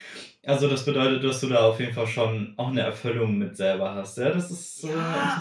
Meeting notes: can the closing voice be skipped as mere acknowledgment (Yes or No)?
No